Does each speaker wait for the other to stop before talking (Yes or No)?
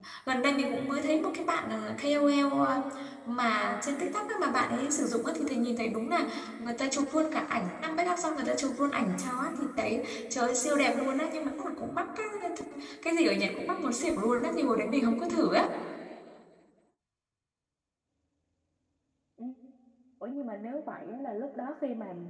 Yes